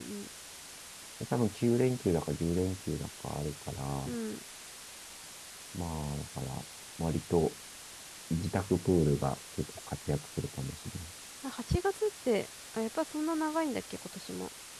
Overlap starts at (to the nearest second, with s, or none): none